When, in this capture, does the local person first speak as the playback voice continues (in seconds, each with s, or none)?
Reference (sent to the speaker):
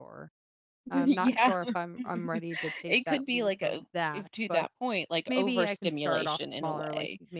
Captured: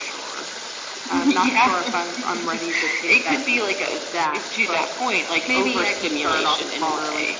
none